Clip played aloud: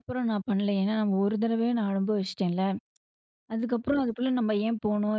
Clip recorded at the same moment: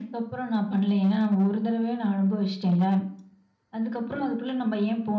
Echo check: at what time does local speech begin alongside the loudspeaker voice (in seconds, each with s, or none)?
none